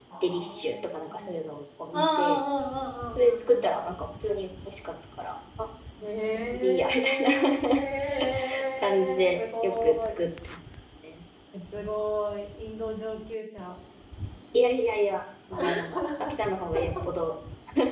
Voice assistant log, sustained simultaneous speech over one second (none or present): present